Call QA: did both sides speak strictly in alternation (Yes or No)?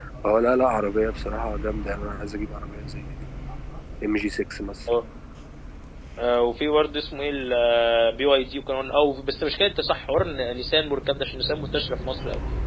Yes